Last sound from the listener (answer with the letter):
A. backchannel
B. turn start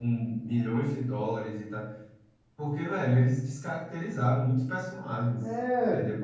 B